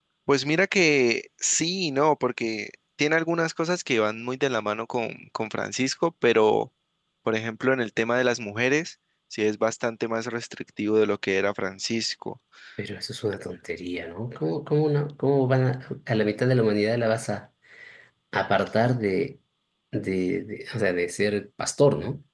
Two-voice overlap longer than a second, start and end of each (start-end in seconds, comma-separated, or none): none